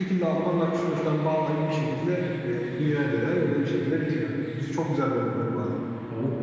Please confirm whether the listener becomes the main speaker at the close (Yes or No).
Yes